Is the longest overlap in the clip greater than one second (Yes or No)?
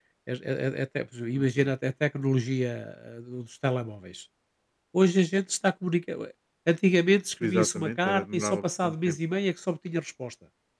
Yes